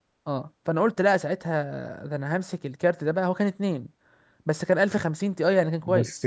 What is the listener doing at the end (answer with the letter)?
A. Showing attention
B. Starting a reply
B